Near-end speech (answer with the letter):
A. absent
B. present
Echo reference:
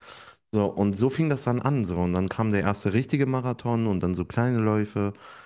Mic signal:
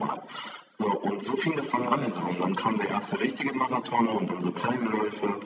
B